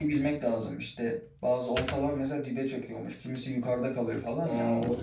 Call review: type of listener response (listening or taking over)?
listening